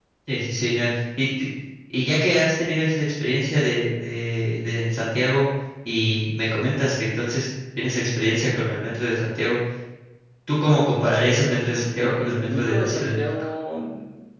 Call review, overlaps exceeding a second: present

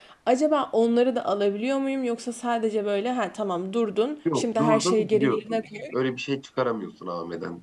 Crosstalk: present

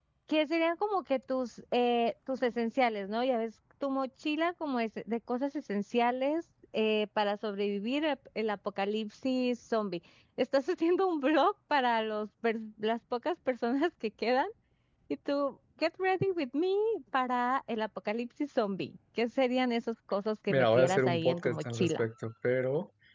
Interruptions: present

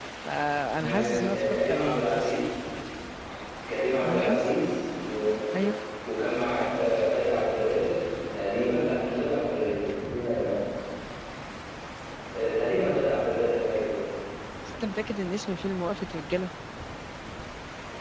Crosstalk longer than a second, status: present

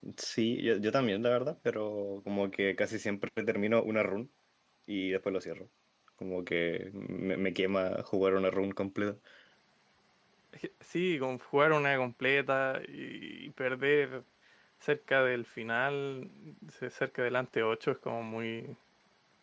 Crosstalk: none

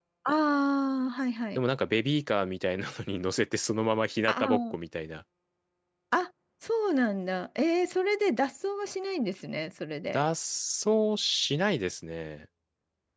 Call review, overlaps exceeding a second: none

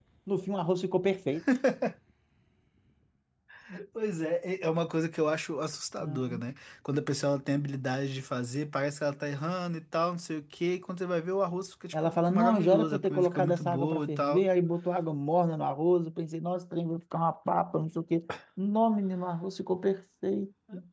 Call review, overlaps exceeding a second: present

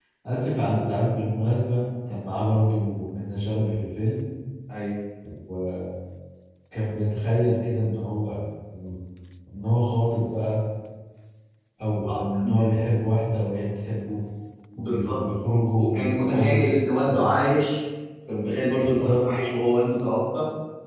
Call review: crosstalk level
present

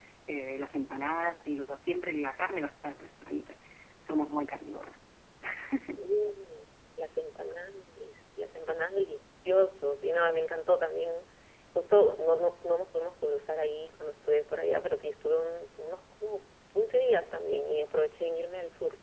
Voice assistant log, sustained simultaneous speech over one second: none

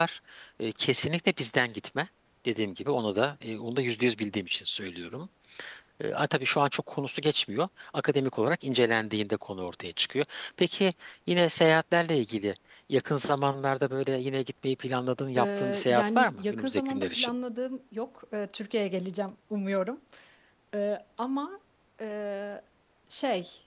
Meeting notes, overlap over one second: present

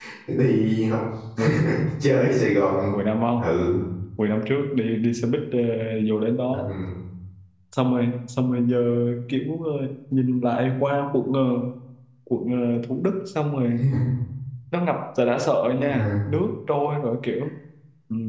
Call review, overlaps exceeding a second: none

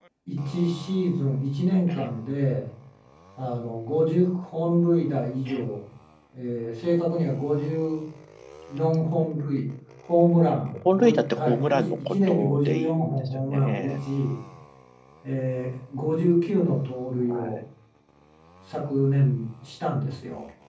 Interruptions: present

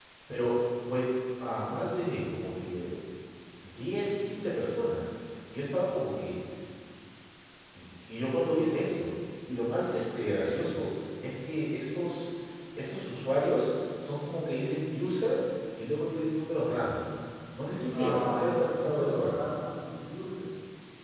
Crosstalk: present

